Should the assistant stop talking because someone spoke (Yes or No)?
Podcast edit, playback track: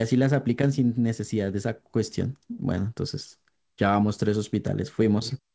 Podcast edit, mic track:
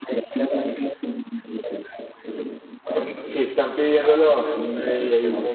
Yes